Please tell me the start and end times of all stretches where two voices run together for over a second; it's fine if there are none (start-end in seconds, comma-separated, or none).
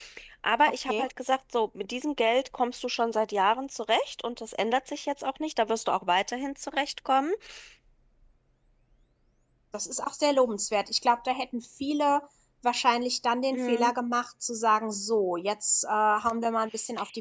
none